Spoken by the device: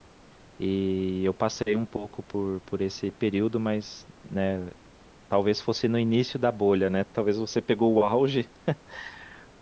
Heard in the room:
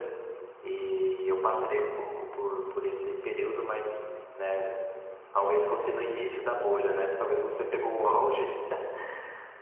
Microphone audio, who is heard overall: echo only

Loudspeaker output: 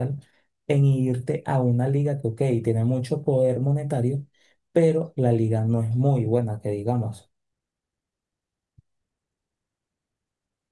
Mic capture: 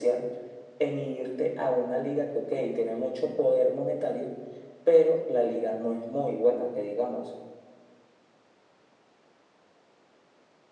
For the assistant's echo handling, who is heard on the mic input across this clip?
echo only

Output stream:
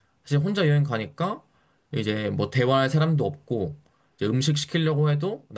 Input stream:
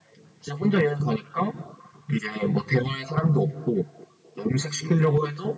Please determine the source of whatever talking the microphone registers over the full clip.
echo only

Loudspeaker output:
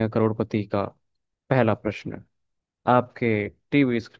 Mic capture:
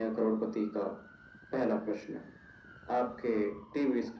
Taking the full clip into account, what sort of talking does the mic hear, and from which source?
echo only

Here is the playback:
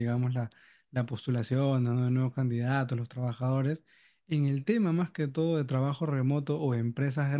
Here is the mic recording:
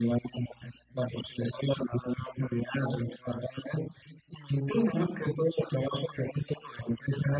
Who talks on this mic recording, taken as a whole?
echo only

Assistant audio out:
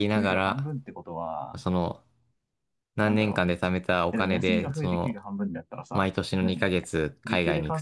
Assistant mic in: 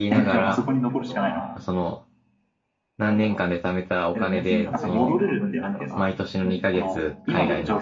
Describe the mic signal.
both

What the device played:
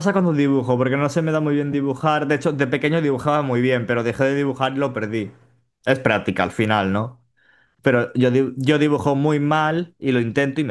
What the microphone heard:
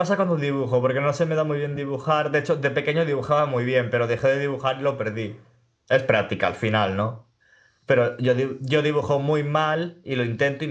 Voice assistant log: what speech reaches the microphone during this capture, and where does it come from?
echo only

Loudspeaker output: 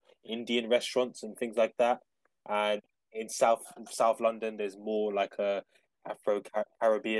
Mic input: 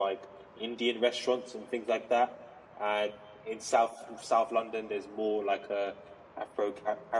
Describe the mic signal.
echo only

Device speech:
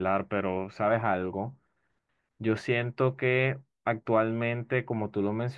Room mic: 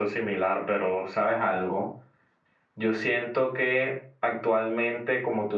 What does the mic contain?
echo only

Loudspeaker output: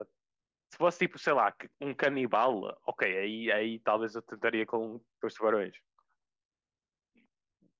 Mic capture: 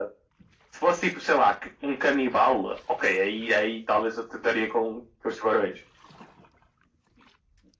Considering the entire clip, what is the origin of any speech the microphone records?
echo only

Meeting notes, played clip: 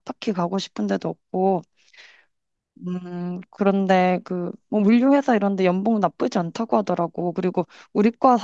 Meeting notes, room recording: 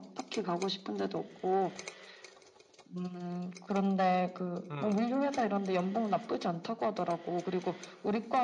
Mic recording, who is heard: both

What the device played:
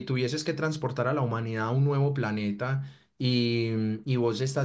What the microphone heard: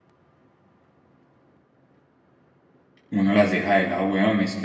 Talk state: user only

